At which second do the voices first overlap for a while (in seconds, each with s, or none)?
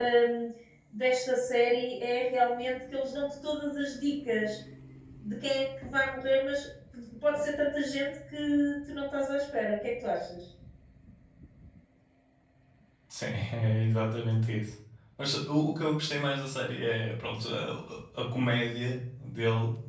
none